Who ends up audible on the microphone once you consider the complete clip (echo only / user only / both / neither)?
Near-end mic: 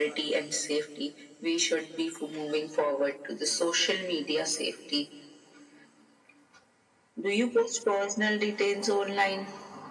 echo only